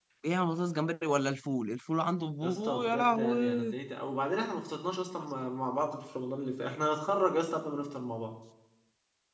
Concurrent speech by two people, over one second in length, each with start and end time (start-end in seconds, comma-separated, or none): 2.4-3.7